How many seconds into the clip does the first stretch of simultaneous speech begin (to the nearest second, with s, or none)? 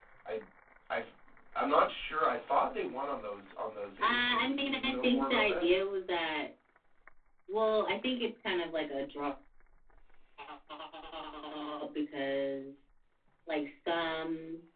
4 s